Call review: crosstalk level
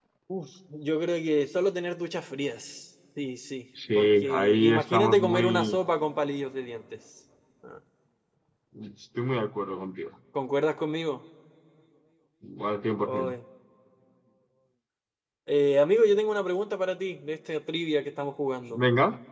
present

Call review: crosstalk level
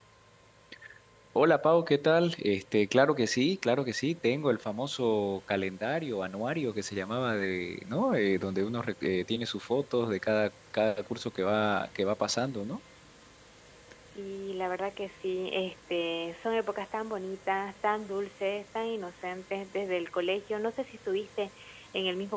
none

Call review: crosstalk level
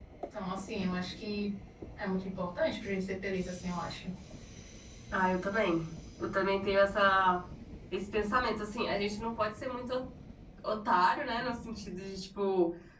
none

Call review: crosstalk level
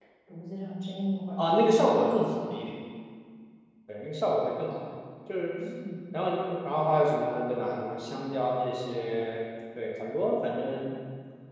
none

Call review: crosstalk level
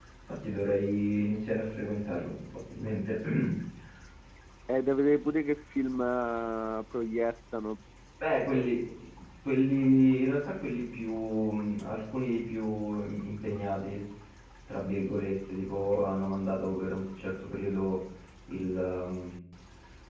none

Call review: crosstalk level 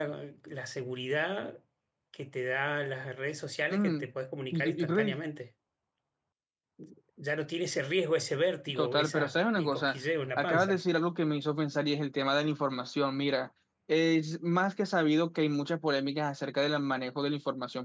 present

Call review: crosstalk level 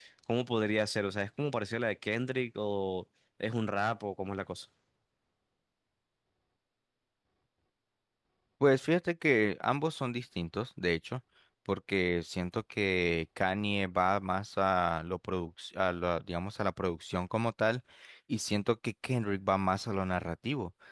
none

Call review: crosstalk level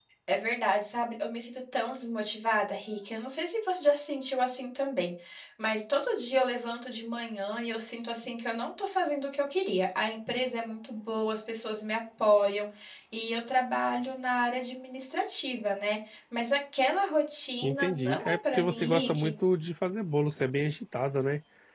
present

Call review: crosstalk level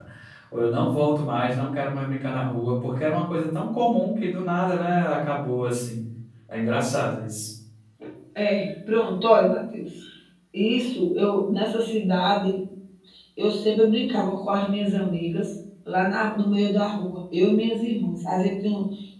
none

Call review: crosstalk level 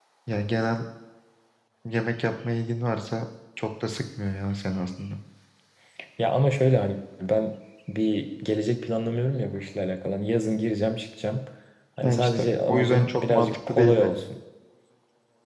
present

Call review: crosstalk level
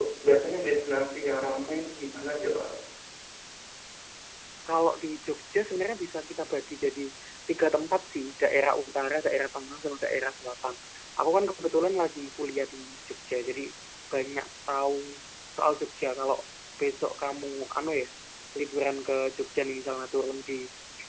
none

